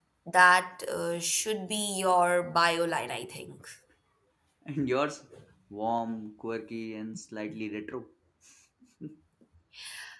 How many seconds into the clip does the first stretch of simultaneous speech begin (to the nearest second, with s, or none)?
none